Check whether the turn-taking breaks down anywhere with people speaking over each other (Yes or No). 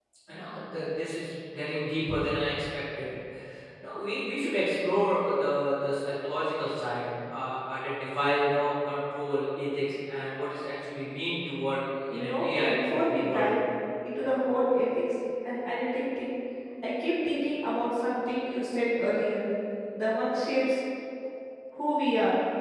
Yes